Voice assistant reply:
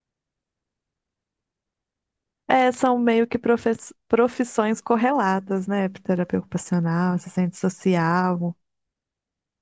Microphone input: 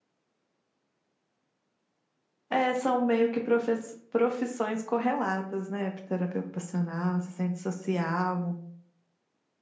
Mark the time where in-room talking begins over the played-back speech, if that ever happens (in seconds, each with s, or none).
none